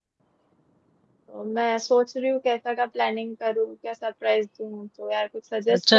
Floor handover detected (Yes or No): Yes